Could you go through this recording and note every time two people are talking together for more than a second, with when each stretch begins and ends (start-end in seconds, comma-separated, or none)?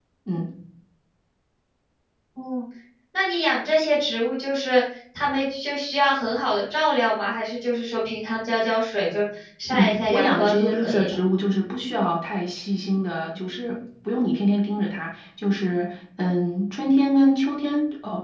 9.7-11.2